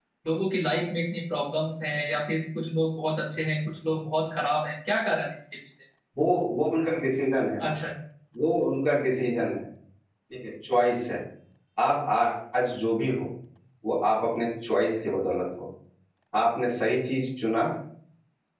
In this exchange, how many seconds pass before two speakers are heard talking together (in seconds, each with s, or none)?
none